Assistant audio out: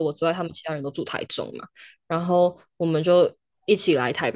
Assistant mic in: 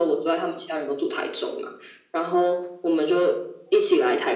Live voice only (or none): none